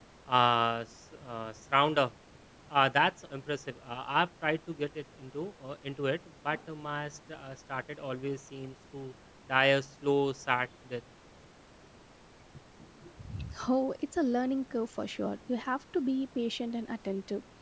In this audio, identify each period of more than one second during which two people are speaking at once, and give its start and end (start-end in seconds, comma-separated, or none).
none